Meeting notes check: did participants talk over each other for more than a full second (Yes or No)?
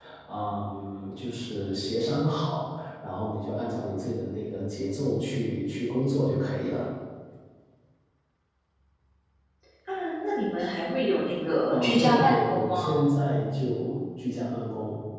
Yes